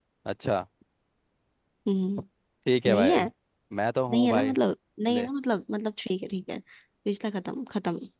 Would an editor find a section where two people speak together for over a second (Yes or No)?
No